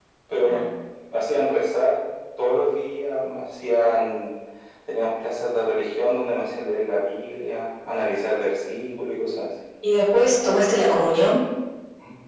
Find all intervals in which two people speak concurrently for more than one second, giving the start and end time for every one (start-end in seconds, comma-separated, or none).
none